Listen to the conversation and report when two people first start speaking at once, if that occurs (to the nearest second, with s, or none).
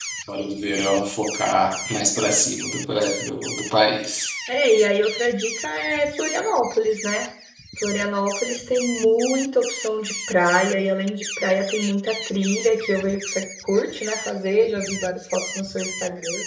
none